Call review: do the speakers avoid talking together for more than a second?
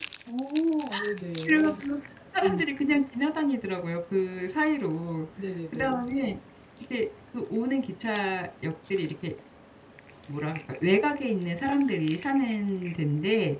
Yes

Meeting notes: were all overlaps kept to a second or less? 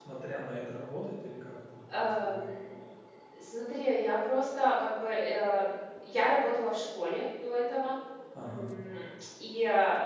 Yes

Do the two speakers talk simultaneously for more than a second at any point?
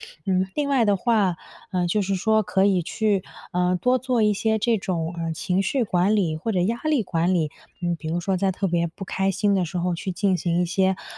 No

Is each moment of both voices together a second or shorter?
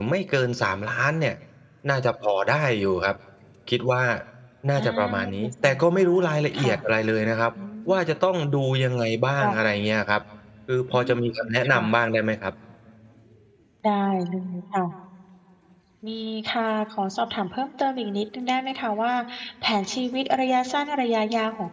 No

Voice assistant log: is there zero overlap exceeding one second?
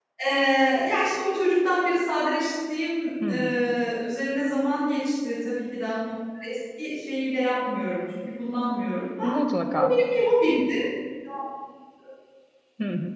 Yes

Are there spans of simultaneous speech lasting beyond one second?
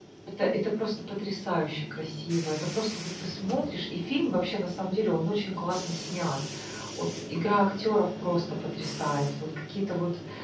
No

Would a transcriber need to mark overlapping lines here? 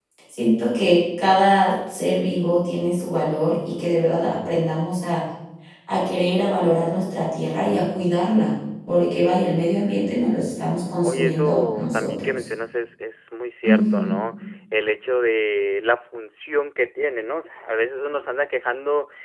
Yes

